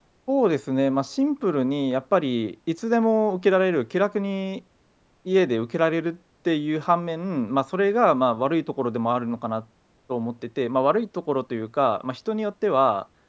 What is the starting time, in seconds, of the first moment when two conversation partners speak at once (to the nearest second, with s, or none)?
none